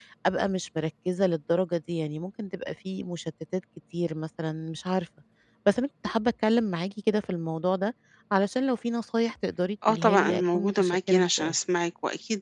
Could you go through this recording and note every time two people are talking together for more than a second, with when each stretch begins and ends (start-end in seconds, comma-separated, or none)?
9.9-11.6